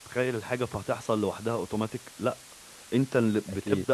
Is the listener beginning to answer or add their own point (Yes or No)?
No